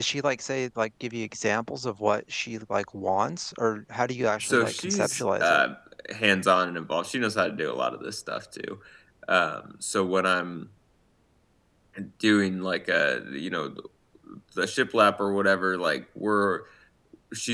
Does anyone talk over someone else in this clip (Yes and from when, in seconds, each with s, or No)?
Yes, from 4.4 s